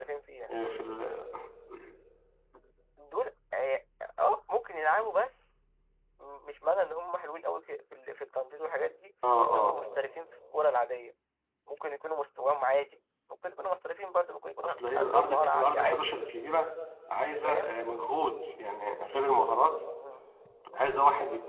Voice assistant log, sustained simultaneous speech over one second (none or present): present